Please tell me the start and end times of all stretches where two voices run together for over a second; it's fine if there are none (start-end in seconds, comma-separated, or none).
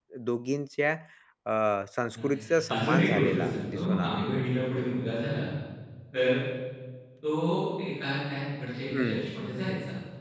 2.7-4.2